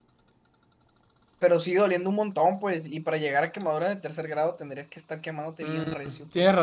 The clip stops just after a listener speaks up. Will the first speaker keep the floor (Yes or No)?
No